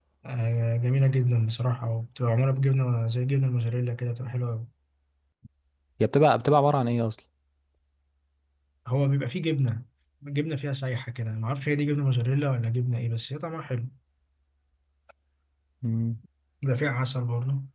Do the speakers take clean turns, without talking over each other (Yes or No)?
Yes